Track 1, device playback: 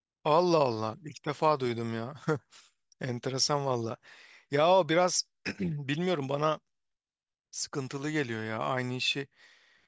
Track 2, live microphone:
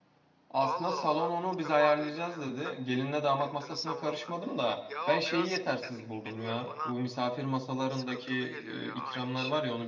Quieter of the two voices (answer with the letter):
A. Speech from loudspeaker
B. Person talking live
A